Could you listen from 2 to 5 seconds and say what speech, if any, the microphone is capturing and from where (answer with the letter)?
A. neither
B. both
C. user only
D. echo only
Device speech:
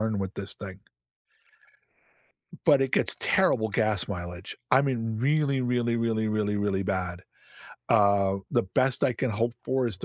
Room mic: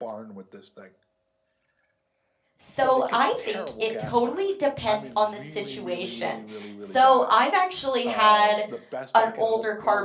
B